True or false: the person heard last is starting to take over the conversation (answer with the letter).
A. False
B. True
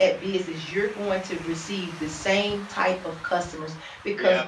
A